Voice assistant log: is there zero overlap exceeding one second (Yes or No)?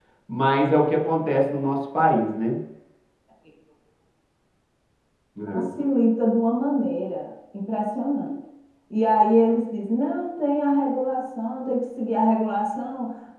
Yes